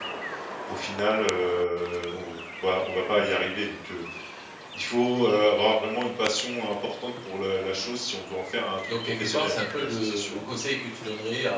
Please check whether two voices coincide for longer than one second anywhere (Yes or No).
Yes